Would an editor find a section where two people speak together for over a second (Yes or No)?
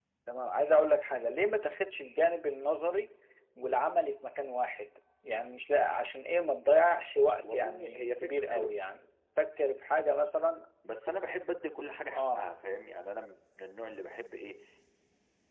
Yes